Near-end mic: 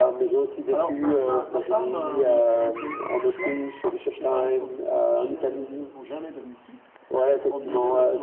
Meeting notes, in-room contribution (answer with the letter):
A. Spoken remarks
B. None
A